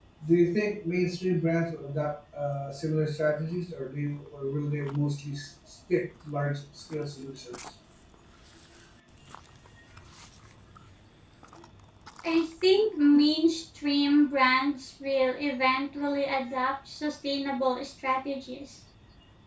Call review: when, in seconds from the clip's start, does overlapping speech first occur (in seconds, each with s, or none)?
none